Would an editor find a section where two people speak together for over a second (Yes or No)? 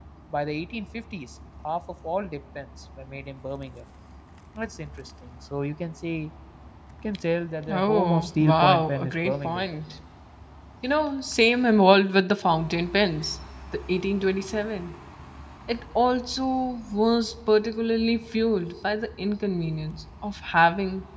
Yes